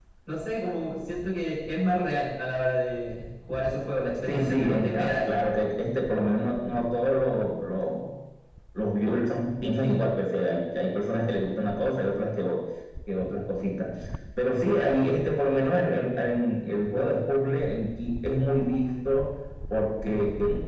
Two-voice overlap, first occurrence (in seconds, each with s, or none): 4.3 s